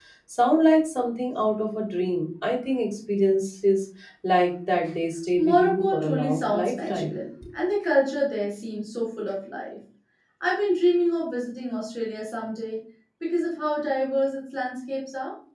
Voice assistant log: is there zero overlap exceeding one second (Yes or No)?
No